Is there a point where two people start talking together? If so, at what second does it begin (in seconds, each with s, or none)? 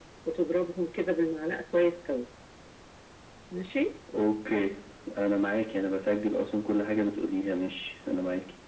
none